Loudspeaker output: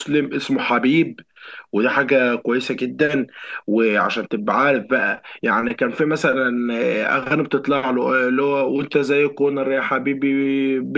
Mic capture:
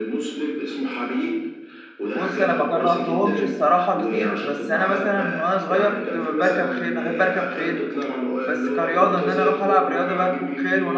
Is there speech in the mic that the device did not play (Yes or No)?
Yes